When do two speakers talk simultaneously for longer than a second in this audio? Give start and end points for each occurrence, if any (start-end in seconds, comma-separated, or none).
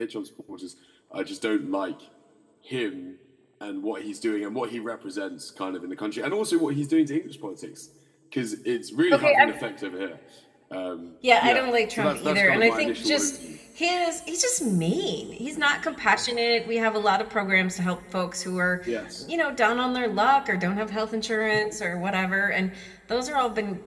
11.4-13.4